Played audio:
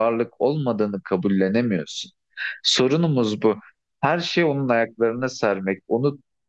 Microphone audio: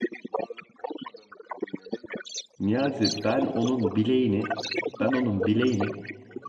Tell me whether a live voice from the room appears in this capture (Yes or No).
Yes